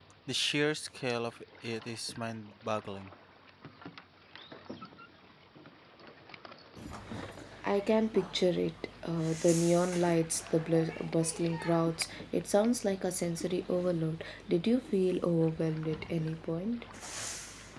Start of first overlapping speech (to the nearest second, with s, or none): none